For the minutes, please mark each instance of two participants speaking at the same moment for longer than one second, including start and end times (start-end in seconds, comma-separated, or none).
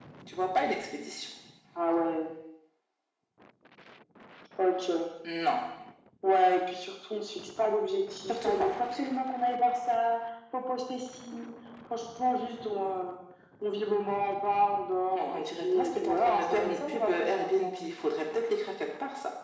15.1-17.8